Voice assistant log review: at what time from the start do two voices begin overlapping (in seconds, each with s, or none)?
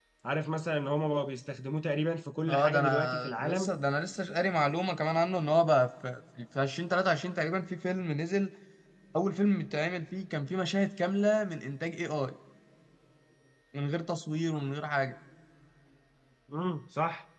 2.5 s